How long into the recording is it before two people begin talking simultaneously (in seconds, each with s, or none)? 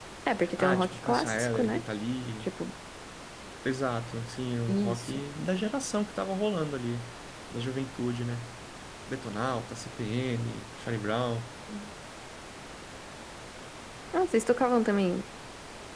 0.6 s